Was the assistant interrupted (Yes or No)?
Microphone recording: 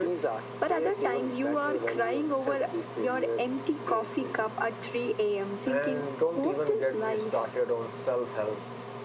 Yes